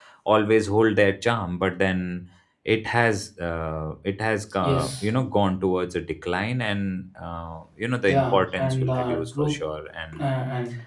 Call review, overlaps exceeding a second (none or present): present